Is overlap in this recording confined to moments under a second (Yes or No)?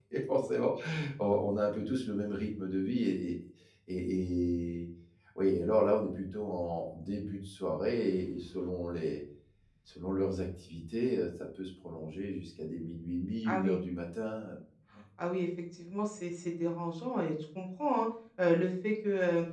Yes